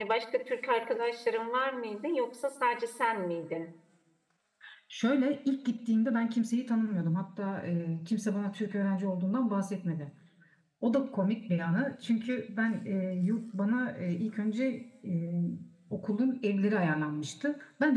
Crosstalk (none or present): none